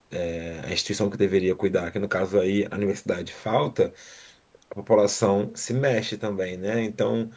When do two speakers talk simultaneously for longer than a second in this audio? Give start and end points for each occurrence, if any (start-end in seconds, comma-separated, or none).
none